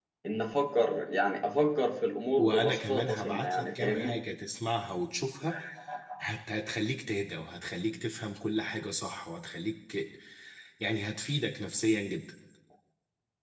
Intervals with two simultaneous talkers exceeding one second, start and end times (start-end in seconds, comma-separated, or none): 2.4-4.2